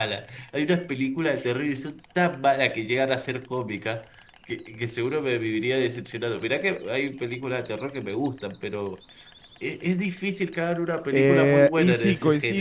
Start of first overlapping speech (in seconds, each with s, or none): 11.1 s